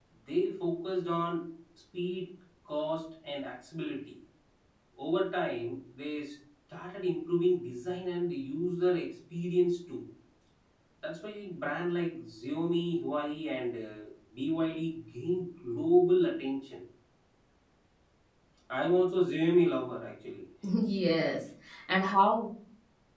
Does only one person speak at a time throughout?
Yes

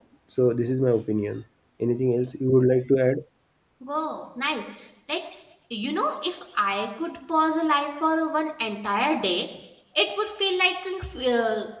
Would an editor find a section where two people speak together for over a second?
No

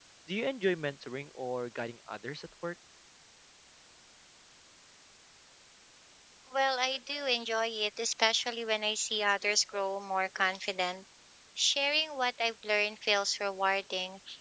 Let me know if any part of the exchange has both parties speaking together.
No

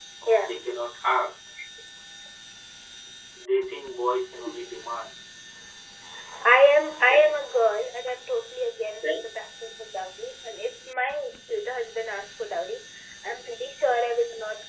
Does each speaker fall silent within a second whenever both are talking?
Yes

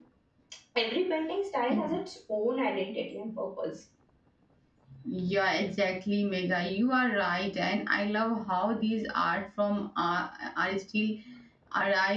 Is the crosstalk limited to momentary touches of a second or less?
Yes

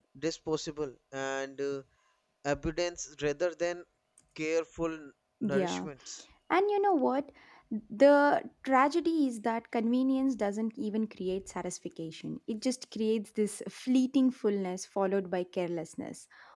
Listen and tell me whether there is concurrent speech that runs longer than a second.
No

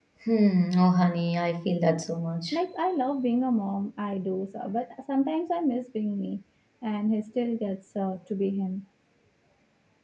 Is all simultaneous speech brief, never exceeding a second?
Yes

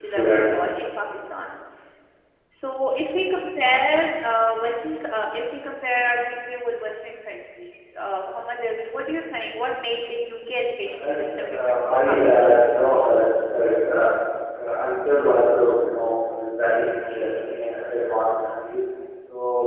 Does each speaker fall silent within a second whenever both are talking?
No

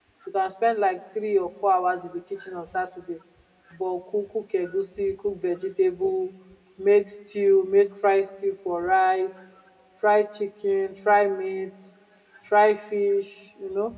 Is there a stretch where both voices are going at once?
No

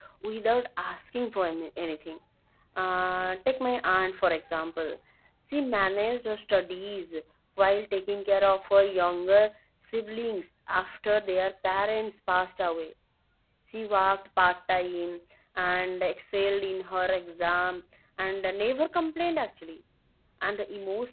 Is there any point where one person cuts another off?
No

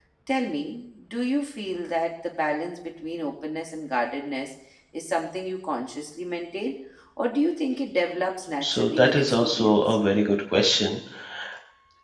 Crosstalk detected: Yes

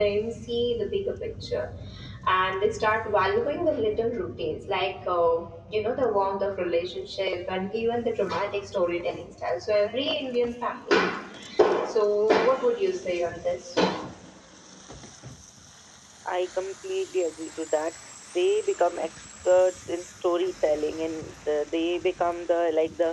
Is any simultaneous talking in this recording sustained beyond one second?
No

